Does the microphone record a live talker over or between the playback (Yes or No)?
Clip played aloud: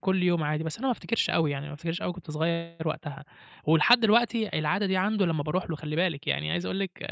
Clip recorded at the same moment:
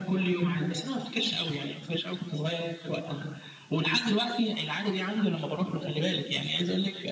No